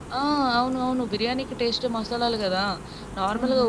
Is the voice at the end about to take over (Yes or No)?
No